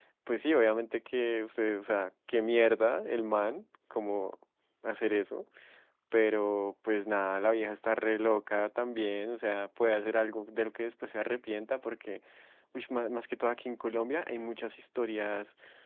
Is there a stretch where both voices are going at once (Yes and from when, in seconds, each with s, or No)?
No